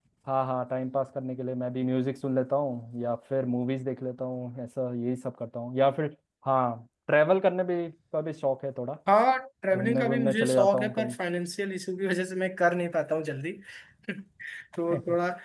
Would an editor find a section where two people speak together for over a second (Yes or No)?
Yes